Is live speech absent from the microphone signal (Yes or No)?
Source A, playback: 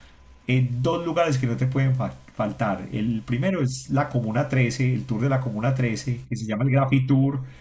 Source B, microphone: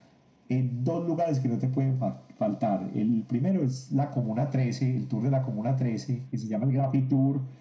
Yes